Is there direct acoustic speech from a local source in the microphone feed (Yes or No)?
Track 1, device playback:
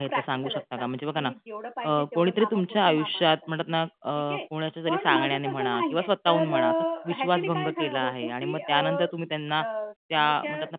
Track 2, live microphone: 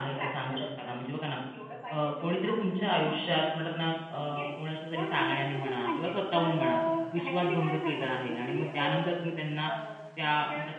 No